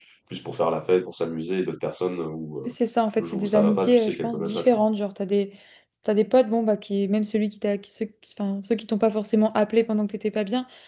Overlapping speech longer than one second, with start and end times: 3.2-4.8

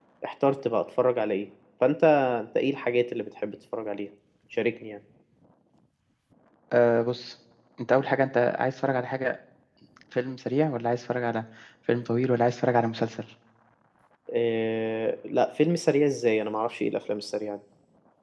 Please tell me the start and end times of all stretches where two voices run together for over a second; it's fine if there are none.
none

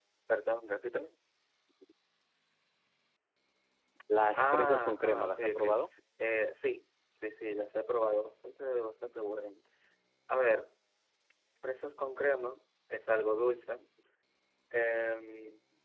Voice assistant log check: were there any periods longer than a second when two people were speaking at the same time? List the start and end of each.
4.3-5.6

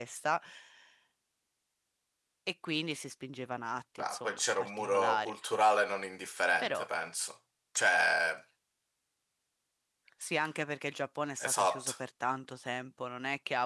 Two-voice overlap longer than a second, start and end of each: 4.0-5.3

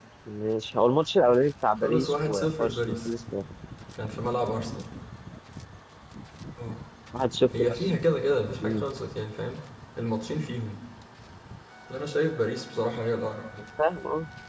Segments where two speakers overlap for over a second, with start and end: 1.8-3.1

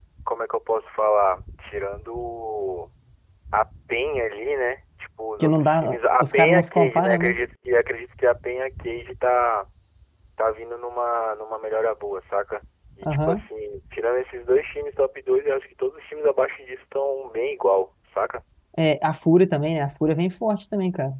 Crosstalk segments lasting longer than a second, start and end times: 5.4-7.3

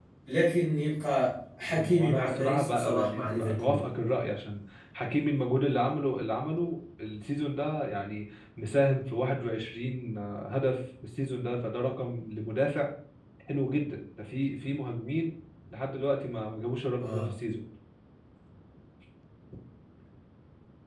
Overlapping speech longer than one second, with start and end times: 1.7-3.8

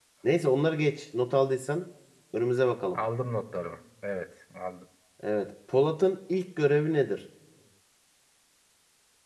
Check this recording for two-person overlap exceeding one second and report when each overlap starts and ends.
none

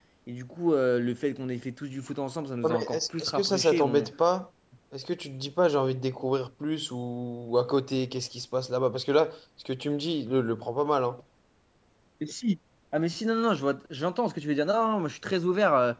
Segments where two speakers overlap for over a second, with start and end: 2.6-3.8

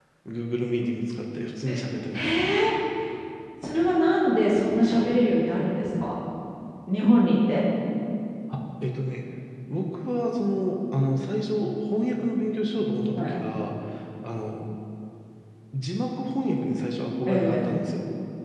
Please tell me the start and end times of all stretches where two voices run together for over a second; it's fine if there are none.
none

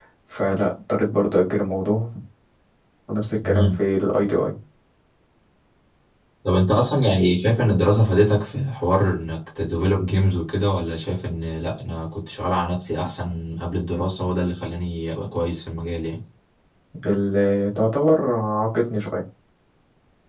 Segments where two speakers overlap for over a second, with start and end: none

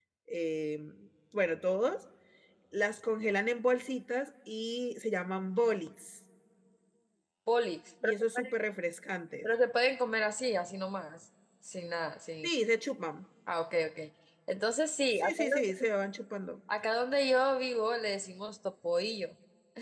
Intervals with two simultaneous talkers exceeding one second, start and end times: none

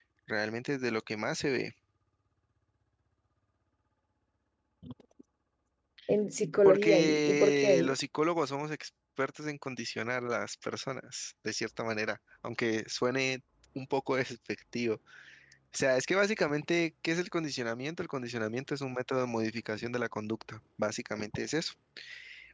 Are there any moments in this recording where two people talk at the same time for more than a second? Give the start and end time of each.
6.6-8.0

